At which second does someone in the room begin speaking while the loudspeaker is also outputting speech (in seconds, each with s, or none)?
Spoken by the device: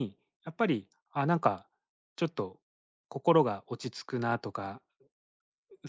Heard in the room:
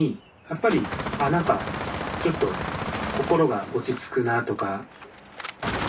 none